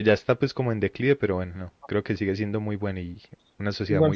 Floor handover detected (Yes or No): Yes